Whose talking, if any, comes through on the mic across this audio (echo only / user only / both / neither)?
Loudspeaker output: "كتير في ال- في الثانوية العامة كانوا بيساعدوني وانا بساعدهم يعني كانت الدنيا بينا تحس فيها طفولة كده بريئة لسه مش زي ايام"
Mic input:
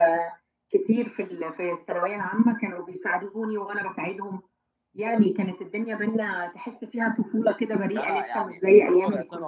both